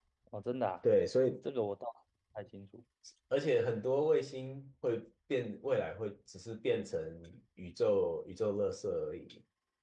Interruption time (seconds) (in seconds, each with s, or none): none